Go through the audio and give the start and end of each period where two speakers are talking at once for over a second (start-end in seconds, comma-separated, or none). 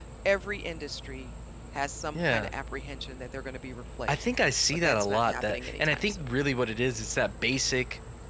4.8-6.2